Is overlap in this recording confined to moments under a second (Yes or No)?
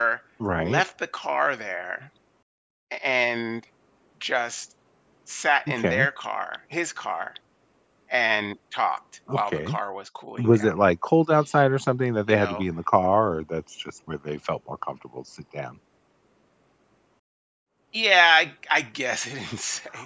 Yes